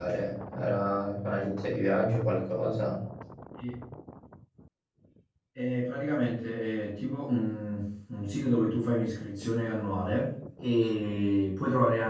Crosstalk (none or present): none